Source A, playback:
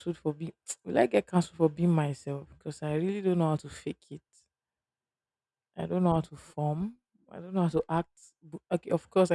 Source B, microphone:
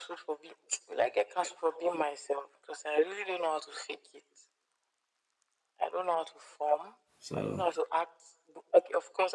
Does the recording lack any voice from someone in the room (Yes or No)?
No